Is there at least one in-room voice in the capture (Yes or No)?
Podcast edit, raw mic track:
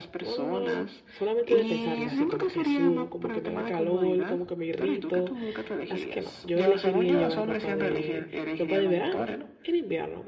Yes